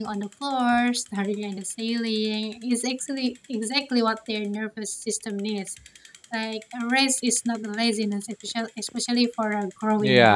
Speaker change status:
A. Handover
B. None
A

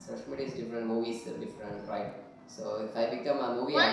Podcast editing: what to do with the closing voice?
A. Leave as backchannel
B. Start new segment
B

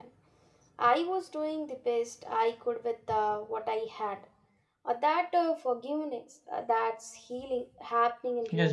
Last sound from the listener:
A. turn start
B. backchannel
A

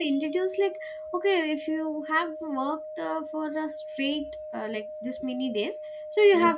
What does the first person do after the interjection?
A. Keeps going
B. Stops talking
A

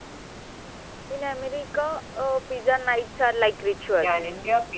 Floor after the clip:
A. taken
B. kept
A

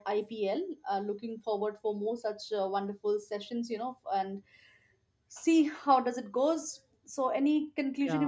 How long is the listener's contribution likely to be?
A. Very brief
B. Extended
B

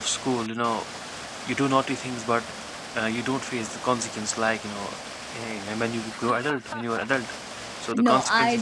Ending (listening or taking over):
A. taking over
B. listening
A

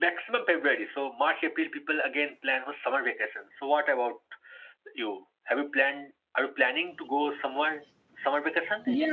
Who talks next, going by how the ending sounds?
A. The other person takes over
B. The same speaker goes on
A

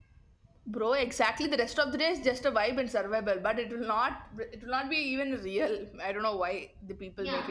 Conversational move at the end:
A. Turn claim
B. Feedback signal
A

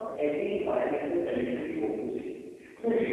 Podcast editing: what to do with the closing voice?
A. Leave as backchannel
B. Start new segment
A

